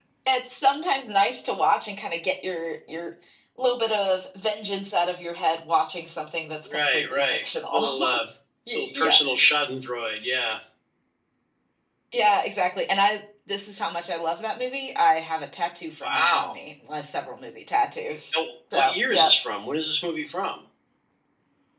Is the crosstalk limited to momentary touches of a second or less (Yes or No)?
No